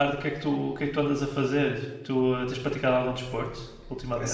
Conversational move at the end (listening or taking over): taking over